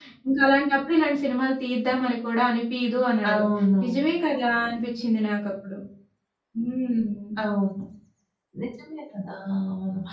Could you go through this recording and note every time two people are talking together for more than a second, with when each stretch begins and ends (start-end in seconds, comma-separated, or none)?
none